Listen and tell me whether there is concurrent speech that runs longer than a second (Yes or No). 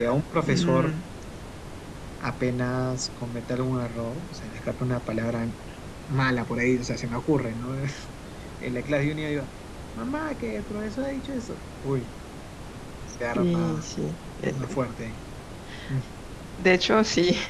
No